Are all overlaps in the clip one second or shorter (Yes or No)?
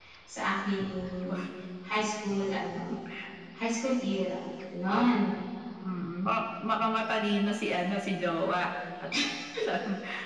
Yes